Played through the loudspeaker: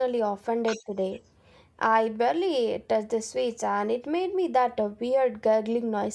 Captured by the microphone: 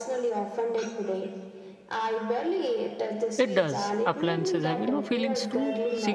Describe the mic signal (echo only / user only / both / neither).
both